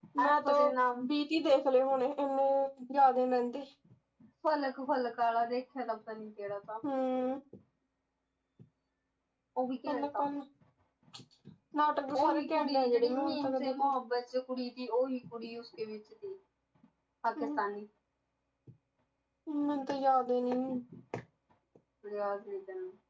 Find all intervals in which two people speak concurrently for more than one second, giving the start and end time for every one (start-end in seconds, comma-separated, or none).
12.2-13.9